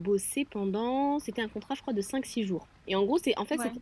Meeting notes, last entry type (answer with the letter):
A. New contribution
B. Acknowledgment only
B